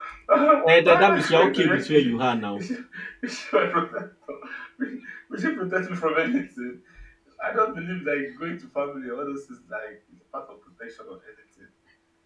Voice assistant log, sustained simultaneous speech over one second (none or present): present